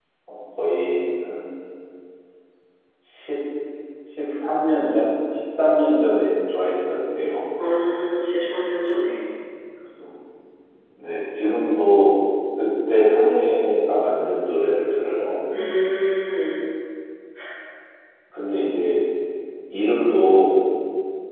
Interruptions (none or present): none